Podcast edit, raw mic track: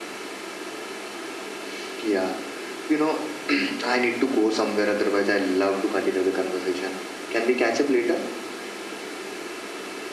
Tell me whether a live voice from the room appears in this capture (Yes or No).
No